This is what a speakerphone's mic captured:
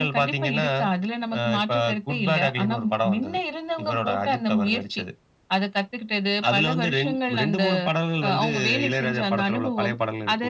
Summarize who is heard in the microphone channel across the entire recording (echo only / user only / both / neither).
echo only